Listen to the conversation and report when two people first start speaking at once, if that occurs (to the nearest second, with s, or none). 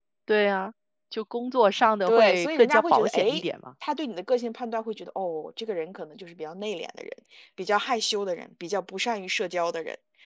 2 s